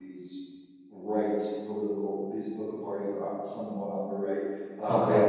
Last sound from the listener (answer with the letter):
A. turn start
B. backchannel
B